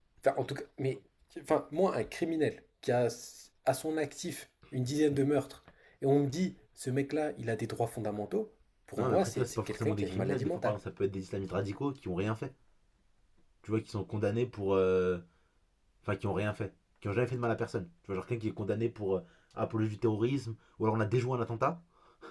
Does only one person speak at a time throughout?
No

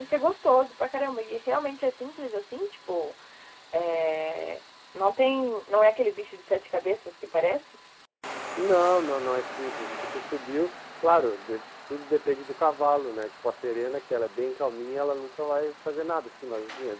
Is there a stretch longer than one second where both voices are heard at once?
No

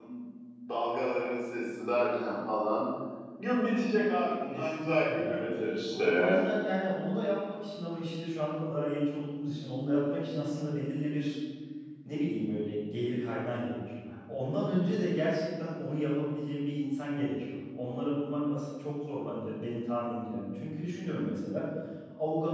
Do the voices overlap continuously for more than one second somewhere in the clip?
Yes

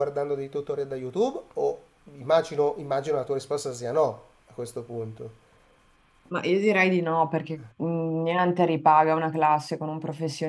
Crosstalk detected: No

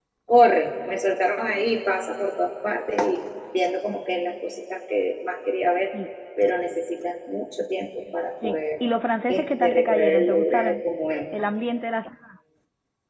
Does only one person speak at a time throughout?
No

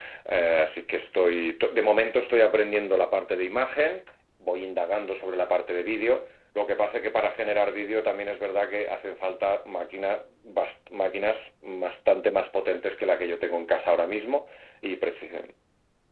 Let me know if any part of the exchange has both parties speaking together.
No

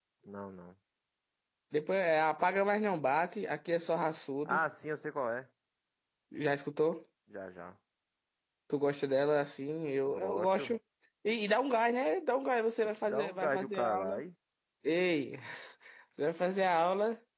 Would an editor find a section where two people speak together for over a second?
Yes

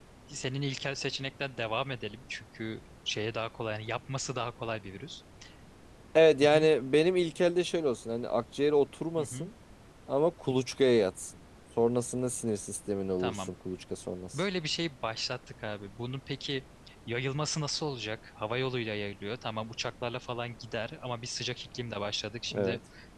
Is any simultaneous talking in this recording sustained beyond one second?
No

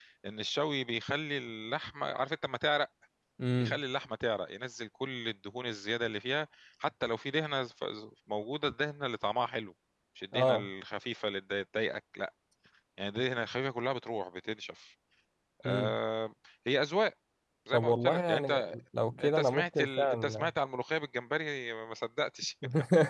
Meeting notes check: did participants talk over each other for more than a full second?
Yes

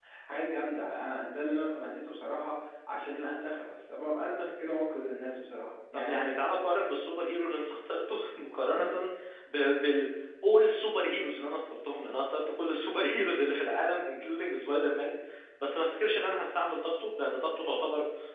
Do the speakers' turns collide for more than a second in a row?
No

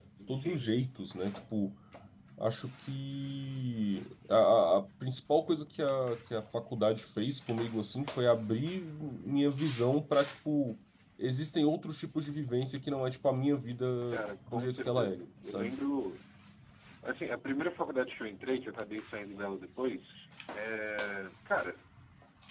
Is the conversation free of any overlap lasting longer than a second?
No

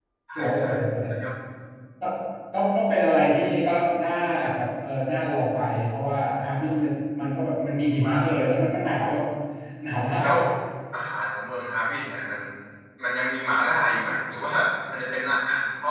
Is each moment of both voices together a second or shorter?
Yes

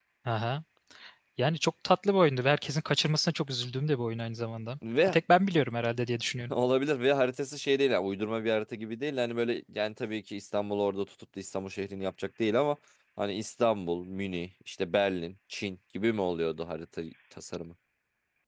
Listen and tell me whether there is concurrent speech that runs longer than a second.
No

